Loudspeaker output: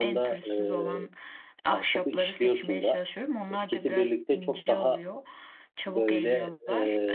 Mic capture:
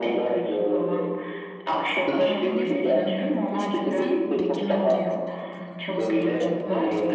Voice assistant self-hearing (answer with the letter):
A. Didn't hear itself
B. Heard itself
B